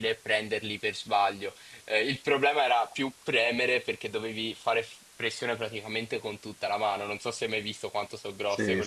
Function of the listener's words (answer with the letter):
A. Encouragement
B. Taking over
B